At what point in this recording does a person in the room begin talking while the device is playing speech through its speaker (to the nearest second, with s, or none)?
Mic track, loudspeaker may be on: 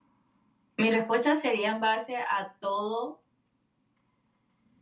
1 s